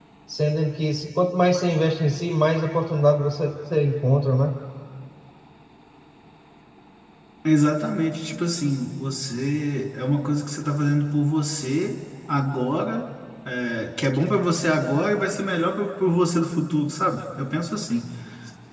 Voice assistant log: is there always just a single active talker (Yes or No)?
Yes